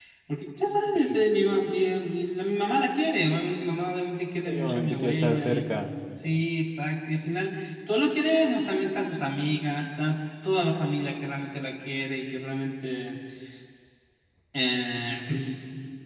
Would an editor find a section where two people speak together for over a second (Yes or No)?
Yes